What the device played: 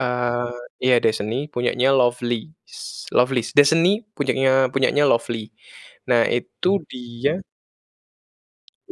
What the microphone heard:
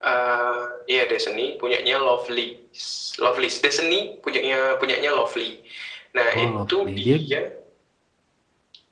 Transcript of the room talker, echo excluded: Oh, Lovely. Dia

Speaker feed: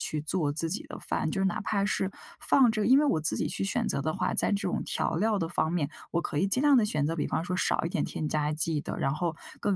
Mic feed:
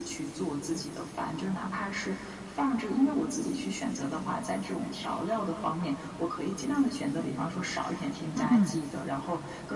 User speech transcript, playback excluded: 嗯嗯。

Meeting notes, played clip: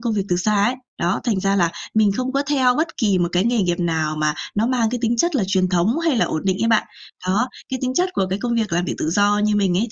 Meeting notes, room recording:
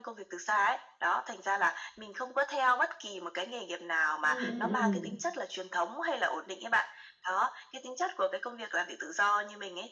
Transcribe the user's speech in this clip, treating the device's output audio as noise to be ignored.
Ừm, ừm, ừm.

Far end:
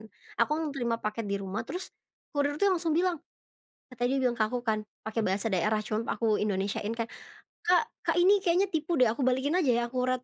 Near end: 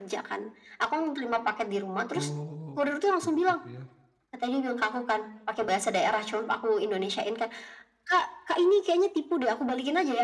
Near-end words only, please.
Oh, syukur ya.

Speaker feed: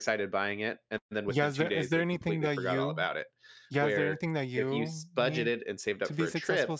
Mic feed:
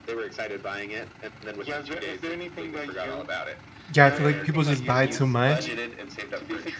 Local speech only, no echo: Yeah, I feel like people just buy too much,

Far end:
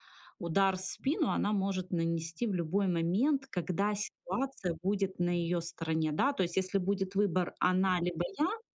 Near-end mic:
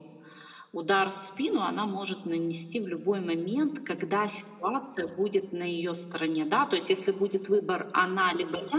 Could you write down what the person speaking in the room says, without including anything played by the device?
none

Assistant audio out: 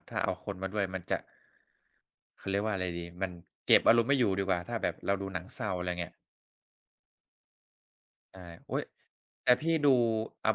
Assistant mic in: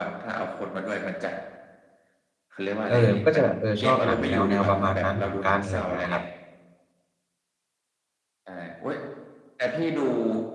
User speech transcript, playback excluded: เออ ก็จะแบบ เออ ชอบหนังแนว ๆ ประมาณนั้นเหมือนกัน อะไรอย่างเงี้ยครับ

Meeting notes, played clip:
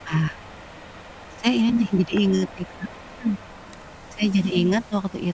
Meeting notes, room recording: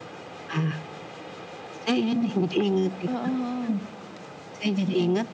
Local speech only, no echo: heeh heeh.

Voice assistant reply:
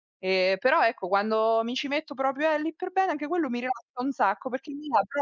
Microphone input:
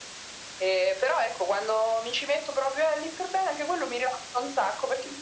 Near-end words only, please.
none

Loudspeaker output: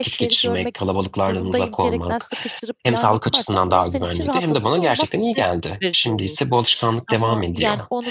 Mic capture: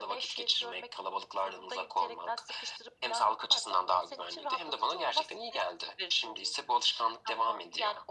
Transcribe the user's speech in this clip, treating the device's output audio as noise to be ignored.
none

